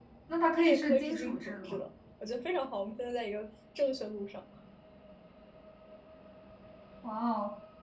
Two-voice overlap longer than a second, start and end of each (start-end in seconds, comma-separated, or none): 0.6-1.8